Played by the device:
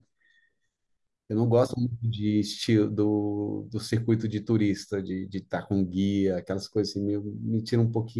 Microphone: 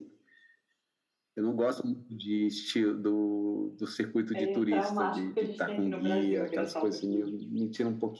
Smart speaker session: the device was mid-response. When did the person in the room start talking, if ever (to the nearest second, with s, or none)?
4 s